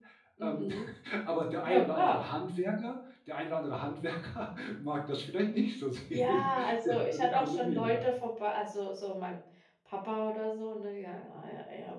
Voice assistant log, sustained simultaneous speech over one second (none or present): present